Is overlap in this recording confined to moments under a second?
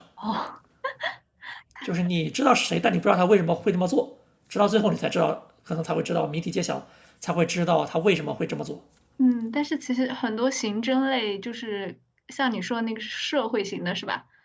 Yes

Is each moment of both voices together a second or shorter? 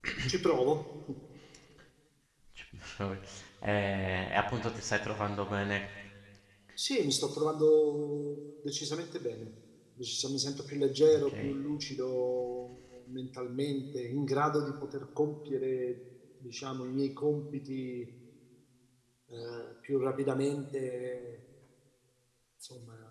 Yes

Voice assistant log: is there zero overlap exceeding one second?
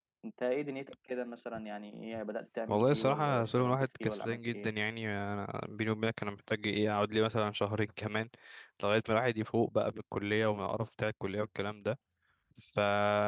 No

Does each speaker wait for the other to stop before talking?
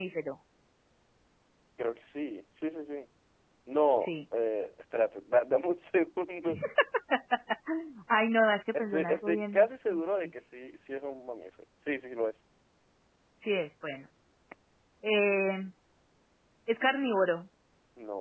No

